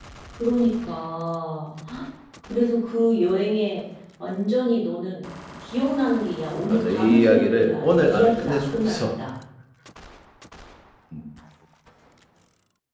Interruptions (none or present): present